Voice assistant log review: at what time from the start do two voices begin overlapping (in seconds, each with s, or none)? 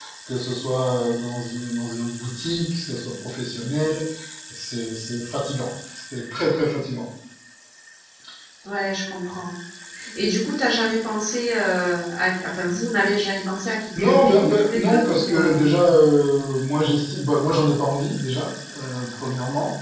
14.0 s